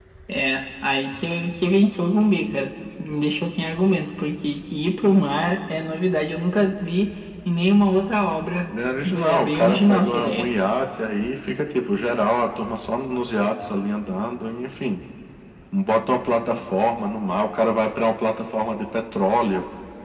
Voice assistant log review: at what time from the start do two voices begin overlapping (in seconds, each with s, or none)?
9.2 s